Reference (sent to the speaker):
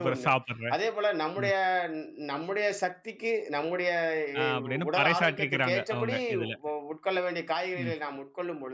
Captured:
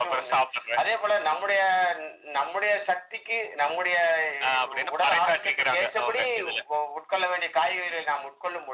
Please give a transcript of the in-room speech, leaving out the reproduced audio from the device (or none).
none